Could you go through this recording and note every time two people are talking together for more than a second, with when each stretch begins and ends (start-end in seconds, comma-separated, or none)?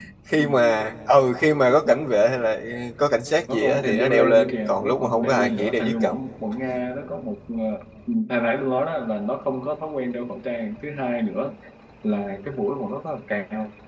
3.5-6.2